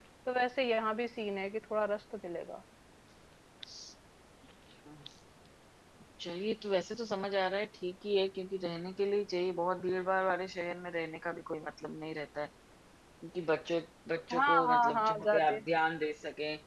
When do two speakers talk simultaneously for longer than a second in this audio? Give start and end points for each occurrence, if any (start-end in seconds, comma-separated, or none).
14.3-15.6